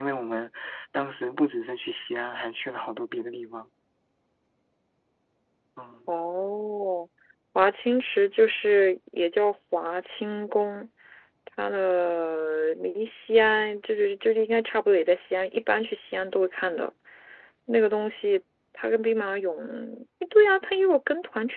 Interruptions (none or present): none